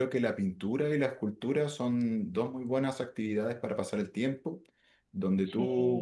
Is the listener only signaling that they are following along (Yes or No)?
Yes